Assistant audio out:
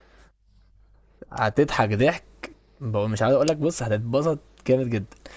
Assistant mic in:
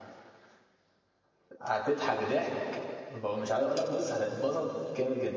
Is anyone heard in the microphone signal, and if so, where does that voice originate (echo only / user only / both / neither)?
echo only